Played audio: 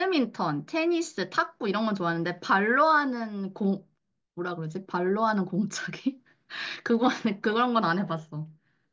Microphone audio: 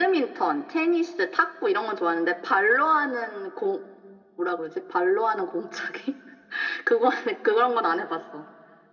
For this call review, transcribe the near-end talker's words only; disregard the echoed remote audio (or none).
none